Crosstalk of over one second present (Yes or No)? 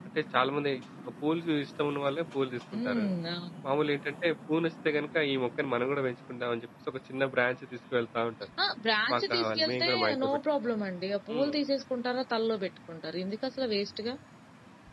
Yes